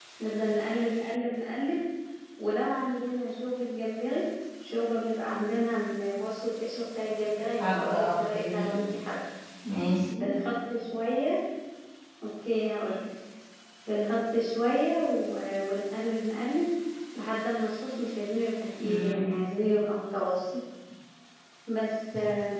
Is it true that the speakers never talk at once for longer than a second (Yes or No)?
No